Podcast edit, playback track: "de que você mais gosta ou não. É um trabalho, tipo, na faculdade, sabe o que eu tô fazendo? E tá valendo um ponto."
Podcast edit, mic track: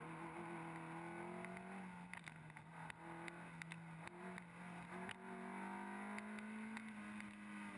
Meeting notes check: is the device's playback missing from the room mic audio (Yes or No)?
Yes